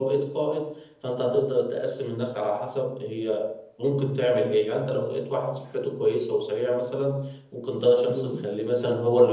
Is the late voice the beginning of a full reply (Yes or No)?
No